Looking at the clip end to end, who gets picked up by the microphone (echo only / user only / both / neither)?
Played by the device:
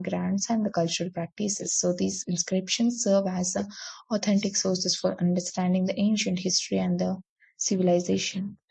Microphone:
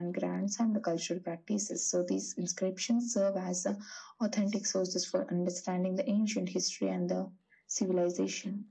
echo only